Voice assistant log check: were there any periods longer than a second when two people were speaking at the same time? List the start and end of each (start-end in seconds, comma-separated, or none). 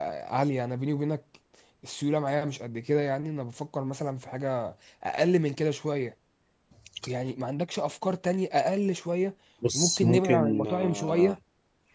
9.7-11.3